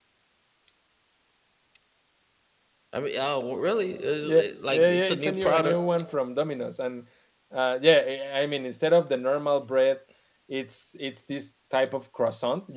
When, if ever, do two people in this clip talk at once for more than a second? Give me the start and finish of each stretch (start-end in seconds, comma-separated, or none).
4.2-6.0